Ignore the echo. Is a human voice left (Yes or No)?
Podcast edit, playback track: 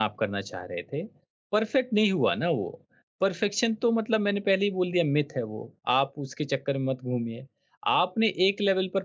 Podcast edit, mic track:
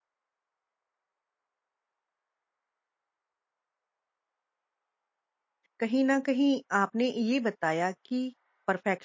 Yes